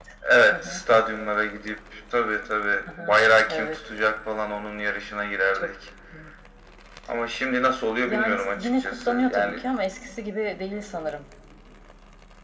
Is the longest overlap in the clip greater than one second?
Yes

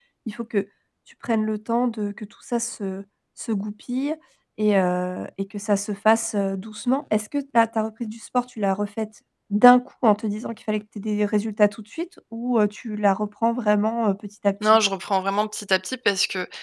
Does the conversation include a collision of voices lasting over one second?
No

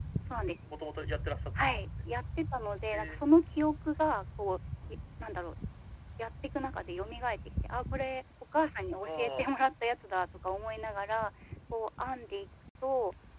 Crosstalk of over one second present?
No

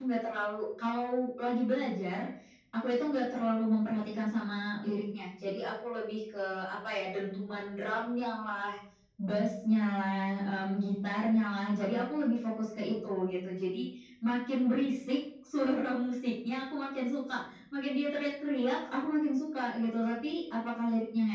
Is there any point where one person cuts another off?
No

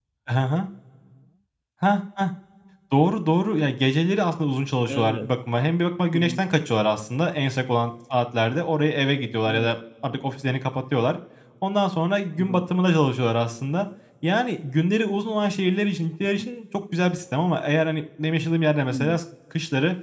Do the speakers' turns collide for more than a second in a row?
No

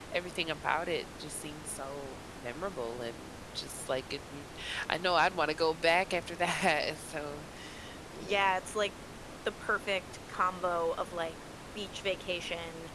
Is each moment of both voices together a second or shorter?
Yes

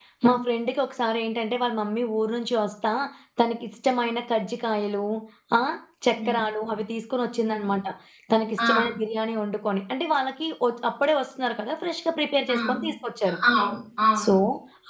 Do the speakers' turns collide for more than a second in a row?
No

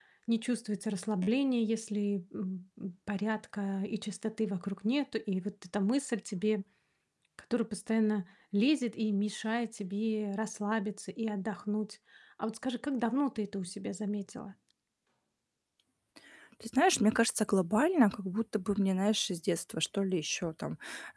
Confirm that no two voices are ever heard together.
Yes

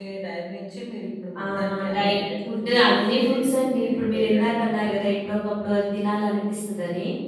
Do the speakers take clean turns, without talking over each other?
No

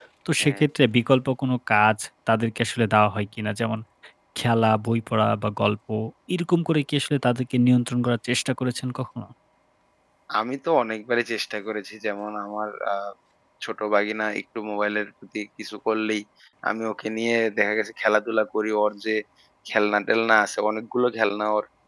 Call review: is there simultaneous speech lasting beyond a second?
No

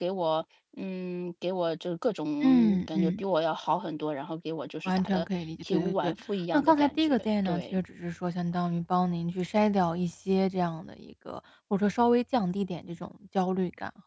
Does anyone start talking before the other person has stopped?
Yes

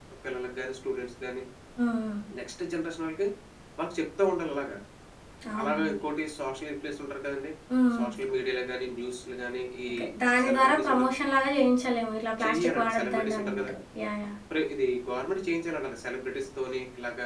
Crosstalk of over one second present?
Yes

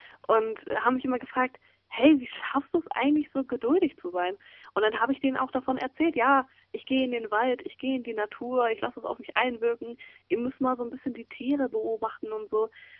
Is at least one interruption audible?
No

